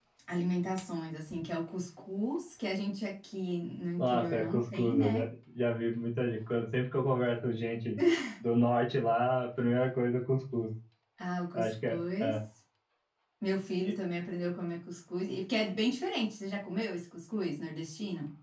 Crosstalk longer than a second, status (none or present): present